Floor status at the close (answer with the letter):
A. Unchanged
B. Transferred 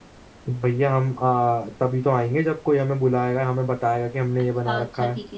B